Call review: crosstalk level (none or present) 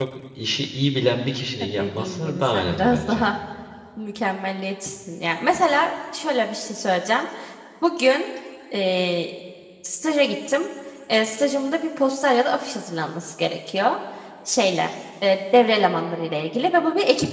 present